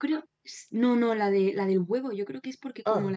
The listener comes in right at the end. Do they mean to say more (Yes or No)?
No